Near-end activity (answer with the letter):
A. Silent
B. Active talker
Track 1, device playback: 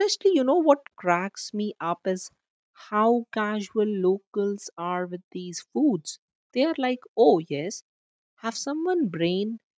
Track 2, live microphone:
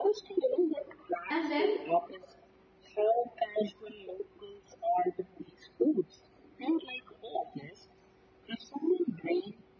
B